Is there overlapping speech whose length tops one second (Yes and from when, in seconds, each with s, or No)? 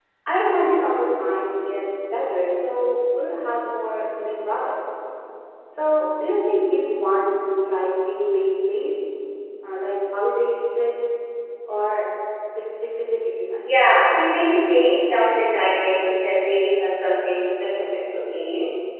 No